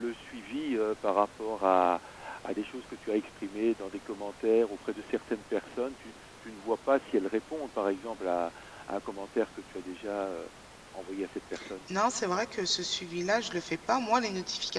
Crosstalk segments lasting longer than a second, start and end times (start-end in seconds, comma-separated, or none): none